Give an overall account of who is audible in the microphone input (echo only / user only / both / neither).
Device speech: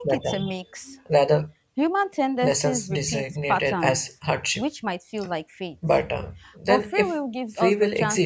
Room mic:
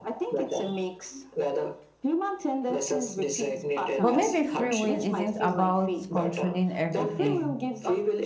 both